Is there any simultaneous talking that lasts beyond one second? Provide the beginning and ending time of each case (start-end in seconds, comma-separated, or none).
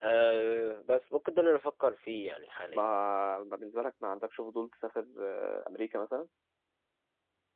none